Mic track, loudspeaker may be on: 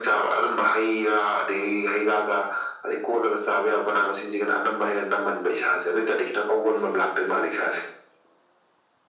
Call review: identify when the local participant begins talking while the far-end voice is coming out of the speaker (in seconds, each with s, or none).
none